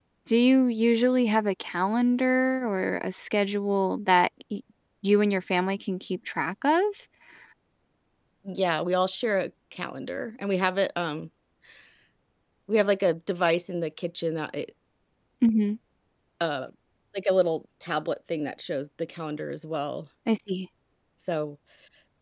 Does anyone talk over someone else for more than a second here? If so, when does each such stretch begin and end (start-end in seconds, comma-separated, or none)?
none